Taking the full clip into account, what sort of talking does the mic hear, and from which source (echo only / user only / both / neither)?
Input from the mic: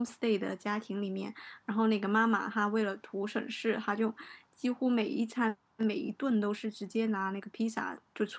user only